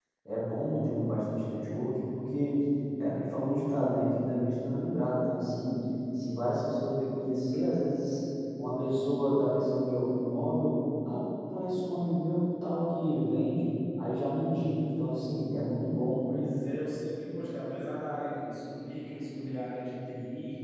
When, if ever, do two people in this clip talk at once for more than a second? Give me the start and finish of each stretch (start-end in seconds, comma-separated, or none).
none